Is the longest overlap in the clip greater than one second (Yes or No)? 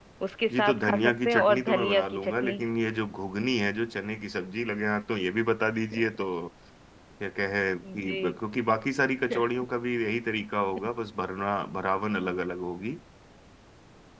Yes